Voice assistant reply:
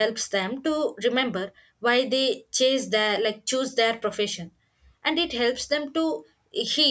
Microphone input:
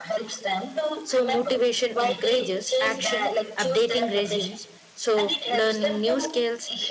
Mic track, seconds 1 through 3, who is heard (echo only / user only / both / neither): both